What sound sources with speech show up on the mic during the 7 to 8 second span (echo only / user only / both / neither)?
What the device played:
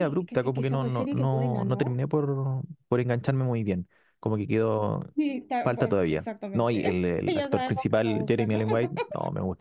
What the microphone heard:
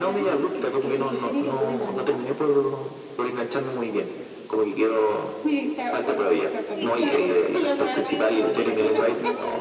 both